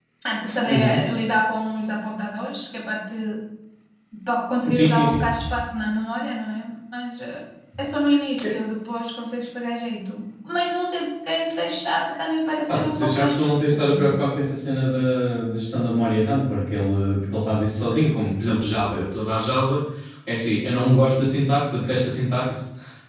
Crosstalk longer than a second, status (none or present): present